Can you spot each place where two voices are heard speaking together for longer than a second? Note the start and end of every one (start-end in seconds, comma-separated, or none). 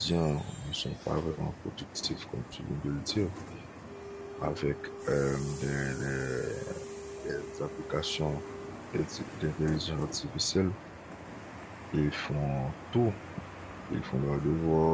none